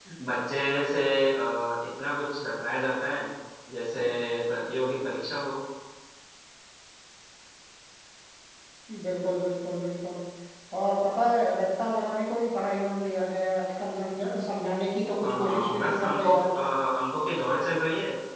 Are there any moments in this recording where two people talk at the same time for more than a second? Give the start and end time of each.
15.2-16.5

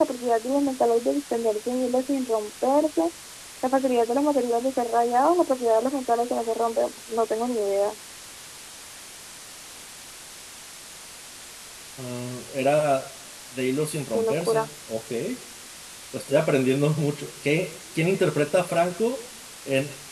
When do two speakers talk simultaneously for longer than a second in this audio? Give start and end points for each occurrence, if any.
none

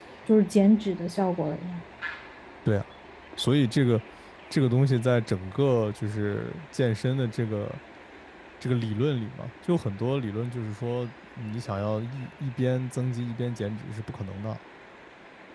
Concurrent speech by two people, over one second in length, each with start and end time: none

